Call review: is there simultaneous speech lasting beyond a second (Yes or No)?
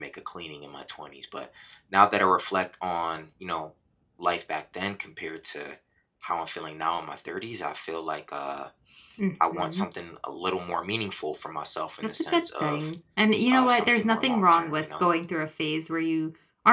Yes